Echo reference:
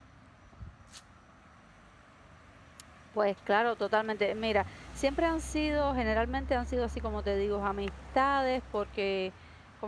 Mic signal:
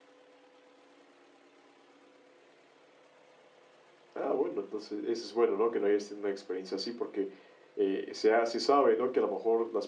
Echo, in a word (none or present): none